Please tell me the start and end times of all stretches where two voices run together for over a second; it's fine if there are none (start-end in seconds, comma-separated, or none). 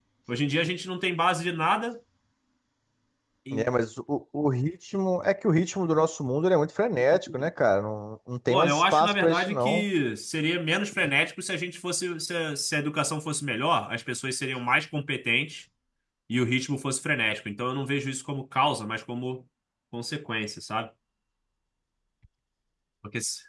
8.5-9.8